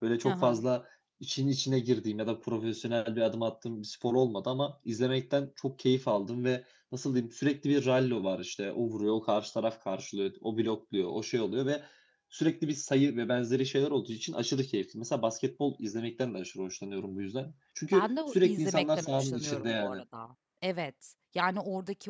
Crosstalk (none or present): present